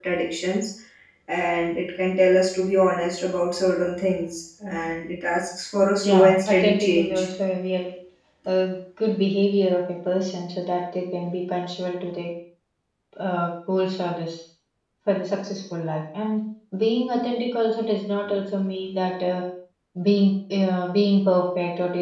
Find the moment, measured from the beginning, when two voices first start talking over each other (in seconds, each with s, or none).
6.0 s